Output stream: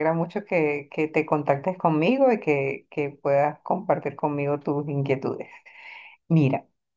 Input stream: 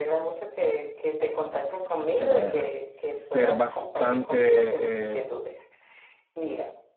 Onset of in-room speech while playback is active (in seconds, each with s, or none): 2.2 s